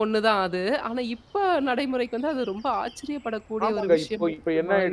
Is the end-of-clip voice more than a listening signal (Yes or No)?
Yes